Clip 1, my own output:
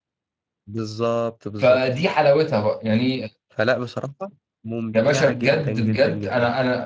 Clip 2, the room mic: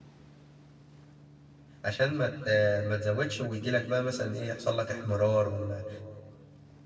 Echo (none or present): none